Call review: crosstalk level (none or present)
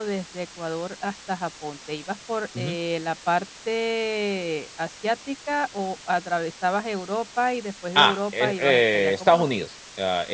present